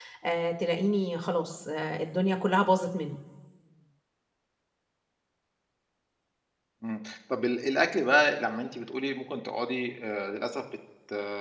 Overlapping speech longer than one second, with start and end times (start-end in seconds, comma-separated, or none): none